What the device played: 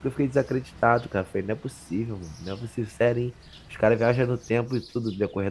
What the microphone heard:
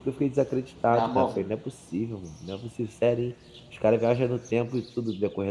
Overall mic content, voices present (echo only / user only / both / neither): both